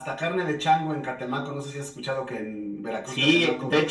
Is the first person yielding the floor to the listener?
Yes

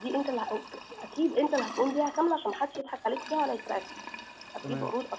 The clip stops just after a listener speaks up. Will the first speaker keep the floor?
Yes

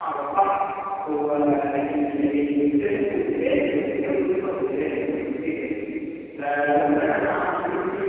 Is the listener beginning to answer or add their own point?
No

